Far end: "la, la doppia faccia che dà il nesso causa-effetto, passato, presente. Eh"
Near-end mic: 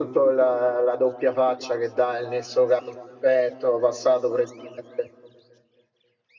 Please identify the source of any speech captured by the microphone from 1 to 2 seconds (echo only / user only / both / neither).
echo only